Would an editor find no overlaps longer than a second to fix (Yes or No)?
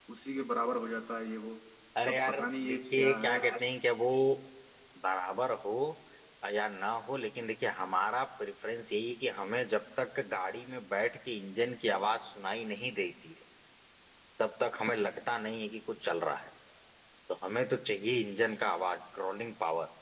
No